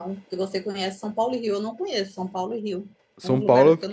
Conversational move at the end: taking over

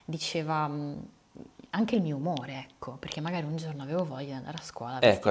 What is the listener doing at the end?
taking over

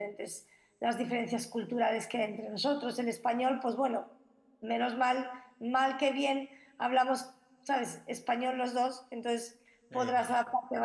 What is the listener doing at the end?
listening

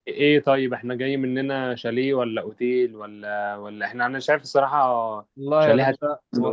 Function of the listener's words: taking over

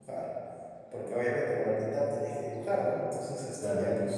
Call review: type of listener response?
listening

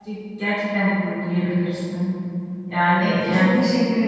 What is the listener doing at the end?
taking over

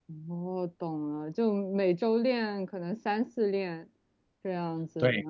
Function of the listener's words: taking over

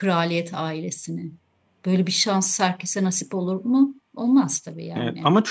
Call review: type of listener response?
taking over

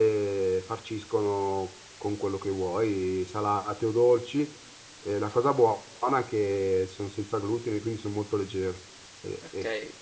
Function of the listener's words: taking over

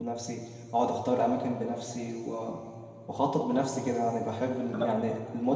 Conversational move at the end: listening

